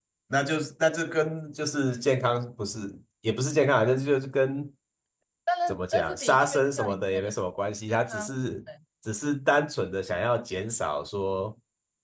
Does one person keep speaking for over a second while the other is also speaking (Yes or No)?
Yes